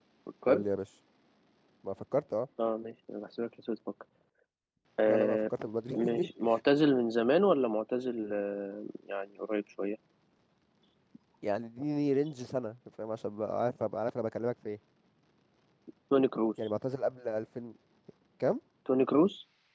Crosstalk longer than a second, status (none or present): none